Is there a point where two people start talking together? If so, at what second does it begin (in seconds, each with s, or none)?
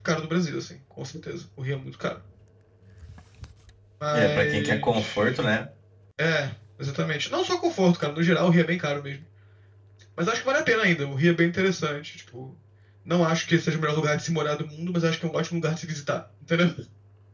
4.1 s